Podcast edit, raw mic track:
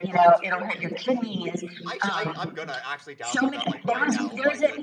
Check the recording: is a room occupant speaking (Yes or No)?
Yes